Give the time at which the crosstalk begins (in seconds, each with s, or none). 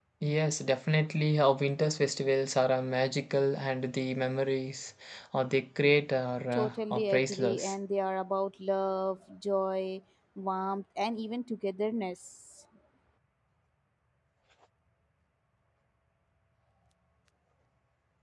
6.5 s